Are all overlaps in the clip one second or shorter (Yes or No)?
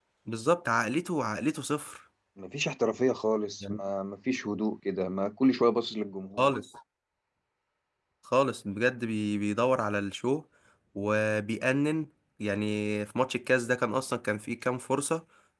Yes